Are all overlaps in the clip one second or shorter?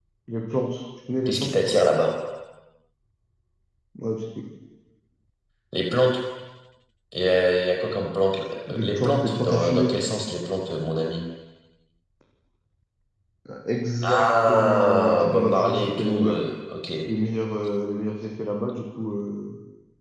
No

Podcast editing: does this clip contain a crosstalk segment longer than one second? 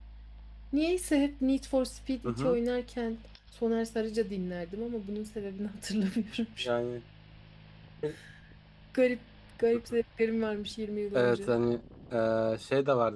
No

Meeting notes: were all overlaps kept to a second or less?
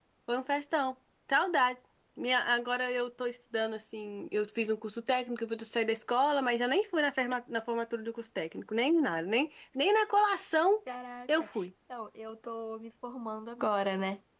Yes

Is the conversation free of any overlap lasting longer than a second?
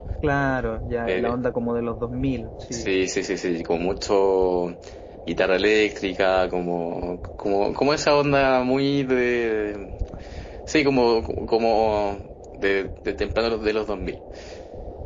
Yes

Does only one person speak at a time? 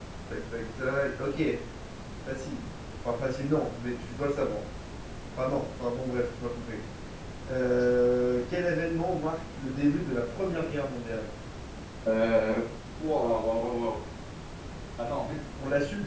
Yes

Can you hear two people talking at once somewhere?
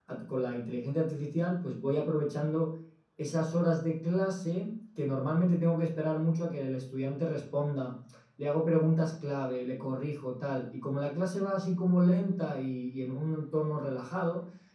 No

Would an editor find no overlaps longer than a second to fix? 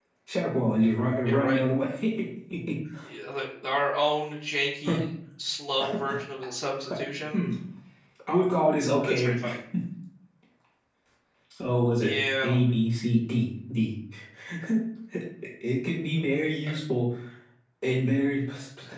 Yes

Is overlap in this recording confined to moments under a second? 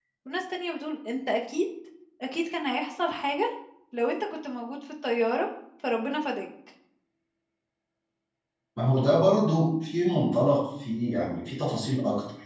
Yes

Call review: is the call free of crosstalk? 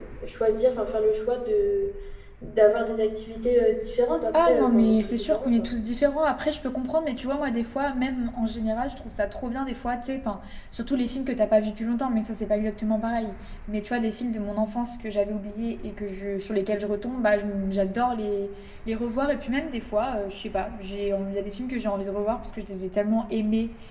No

